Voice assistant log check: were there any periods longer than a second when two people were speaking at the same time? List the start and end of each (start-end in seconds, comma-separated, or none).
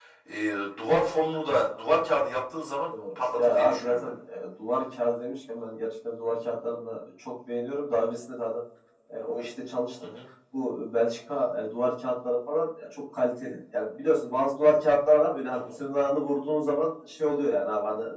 2.9-4.1